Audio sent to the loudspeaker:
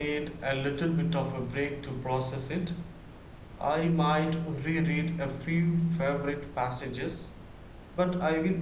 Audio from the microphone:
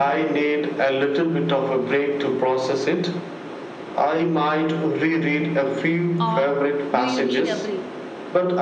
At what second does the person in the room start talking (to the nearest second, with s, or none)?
6 s